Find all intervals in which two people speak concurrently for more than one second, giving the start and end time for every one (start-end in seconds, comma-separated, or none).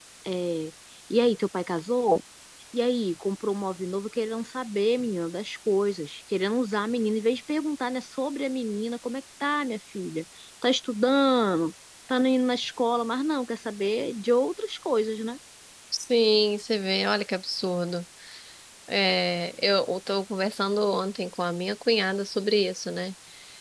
none